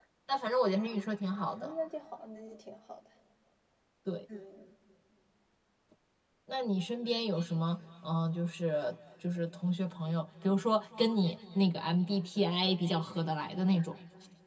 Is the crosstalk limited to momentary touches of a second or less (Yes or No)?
Yes